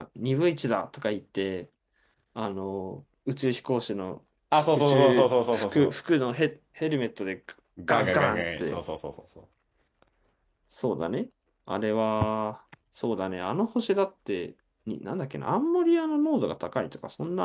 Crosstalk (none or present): present